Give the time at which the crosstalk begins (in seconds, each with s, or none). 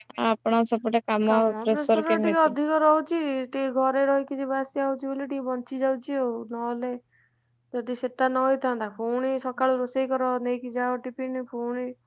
1.3 s